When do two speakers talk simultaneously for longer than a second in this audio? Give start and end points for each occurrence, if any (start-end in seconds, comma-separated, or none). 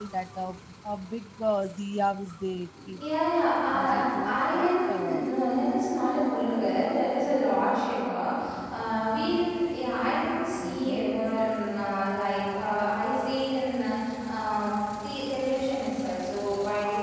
3.8-5.2